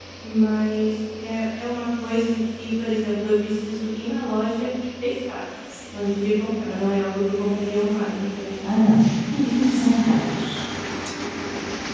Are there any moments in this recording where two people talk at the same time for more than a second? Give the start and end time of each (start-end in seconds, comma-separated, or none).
none